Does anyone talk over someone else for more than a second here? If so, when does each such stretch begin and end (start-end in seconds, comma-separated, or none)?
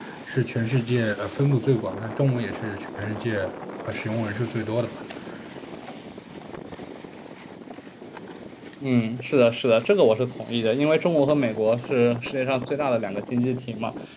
none